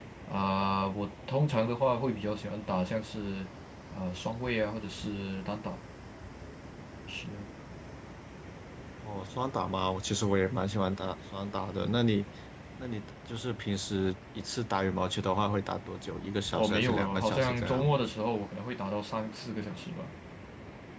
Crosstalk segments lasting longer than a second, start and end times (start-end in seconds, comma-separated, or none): 16.6-17.8